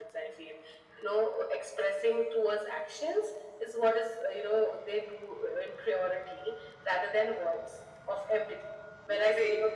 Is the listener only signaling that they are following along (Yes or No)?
Yes